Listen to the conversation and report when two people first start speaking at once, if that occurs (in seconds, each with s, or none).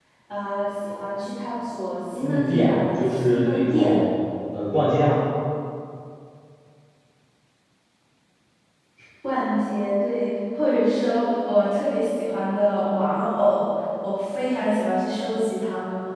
2.2 s